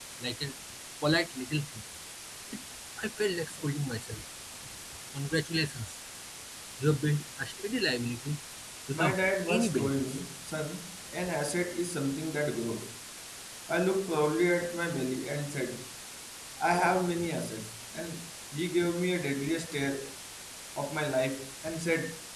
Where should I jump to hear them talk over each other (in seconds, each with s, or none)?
8.9 s